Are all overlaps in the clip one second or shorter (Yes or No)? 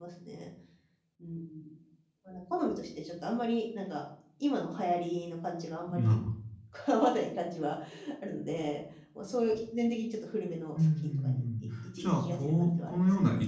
No